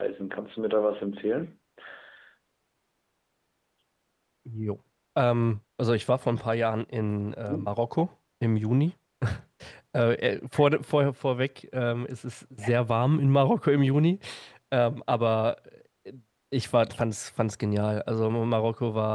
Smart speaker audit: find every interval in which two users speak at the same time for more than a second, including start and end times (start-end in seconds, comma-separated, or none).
none